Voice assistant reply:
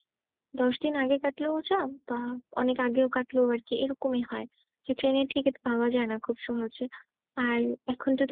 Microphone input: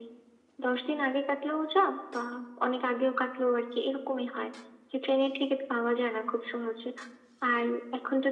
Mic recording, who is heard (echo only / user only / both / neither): echo only